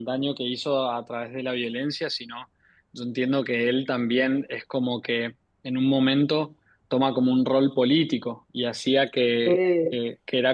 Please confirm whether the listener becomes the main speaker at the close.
No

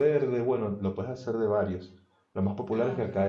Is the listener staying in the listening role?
Yes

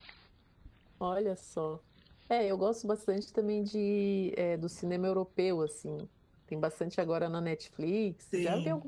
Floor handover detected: Yes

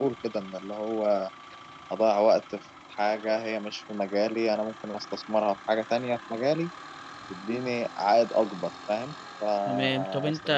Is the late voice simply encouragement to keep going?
No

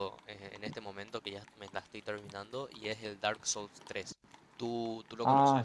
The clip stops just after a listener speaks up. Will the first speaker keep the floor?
No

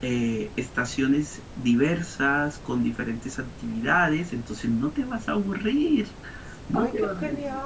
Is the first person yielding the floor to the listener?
Yes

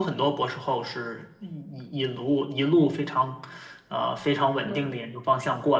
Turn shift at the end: No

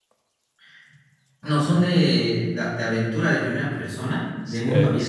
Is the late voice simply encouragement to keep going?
No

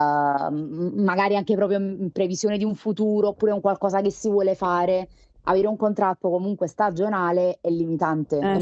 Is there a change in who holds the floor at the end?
Yes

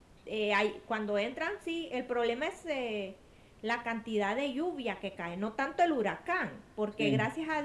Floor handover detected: No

